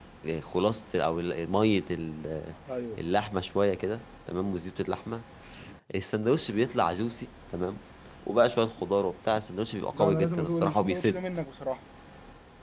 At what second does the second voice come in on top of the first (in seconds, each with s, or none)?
9.9 s